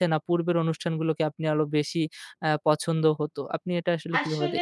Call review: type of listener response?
taking over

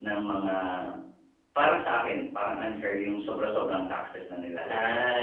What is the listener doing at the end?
taking over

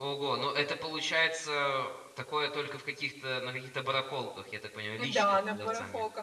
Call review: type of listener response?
taking over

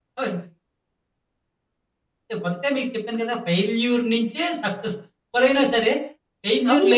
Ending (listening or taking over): taking over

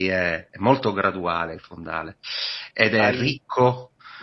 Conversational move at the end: taking over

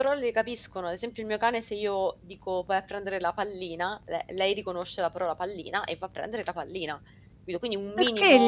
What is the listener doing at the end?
taking over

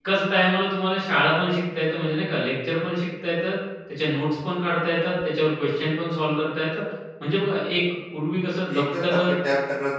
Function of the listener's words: taking over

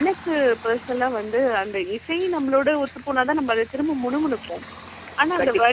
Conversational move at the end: listening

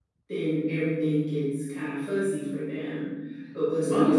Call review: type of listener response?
listening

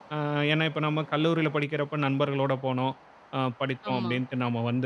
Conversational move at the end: listening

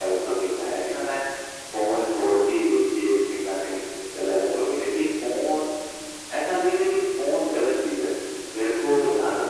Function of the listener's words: listening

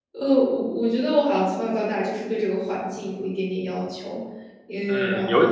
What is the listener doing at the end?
taking over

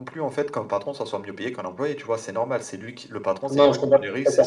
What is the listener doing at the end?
taking over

